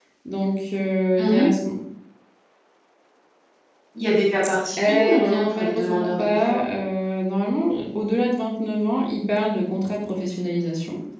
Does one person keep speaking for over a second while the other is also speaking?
Yes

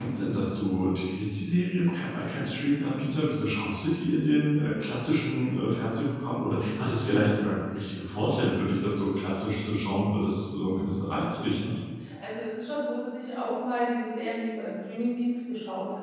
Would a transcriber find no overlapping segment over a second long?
Yes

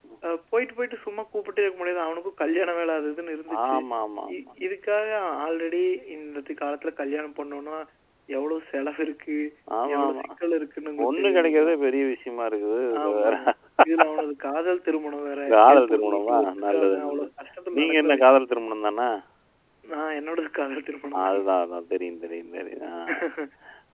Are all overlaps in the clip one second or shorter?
No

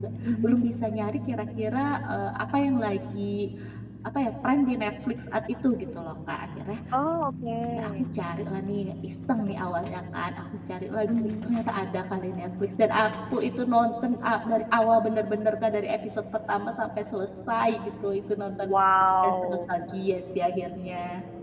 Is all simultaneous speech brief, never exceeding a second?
Yes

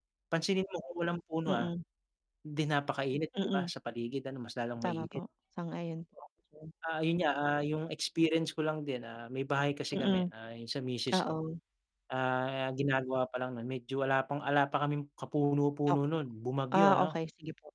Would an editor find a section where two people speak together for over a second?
No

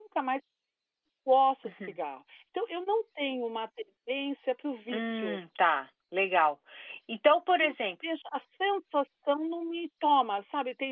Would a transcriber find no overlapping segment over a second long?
Yes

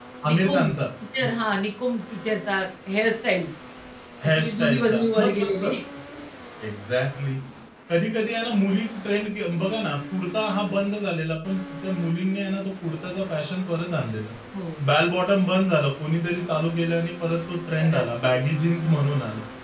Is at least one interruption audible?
Yes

